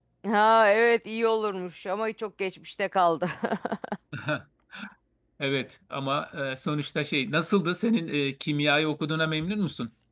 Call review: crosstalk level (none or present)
none